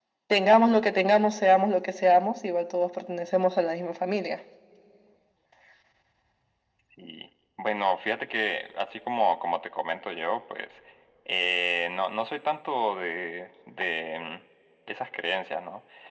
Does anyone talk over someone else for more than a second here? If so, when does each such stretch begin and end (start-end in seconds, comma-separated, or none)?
none